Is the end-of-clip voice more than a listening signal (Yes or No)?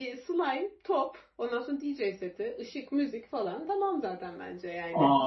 Yes